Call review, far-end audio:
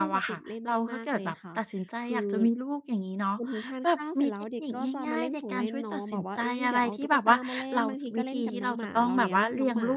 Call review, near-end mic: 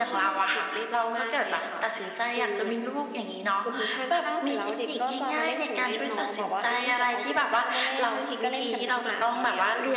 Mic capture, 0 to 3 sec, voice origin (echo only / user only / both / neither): echo only